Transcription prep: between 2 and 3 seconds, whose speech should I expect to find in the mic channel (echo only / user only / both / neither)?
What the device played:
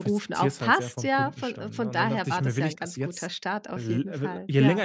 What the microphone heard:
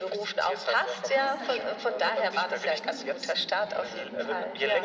both